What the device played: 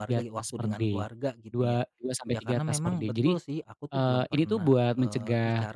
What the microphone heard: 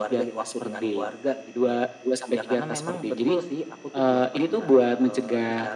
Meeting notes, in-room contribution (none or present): none